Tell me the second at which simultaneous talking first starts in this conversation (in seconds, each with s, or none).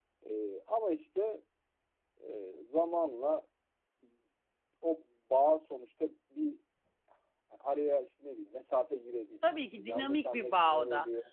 9.4 s